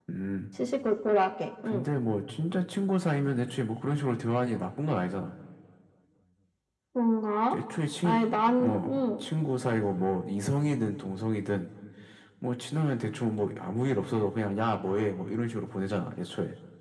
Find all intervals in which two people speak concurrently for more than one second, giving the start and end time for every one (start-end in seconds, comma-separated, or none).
none